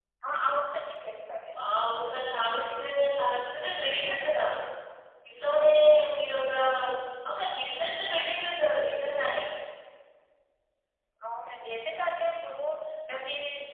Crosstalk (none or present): none